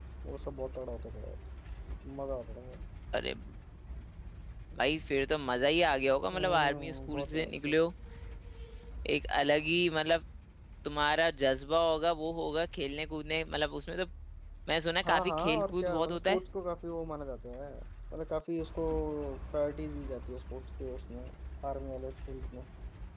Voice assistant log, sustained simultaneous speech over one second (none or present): present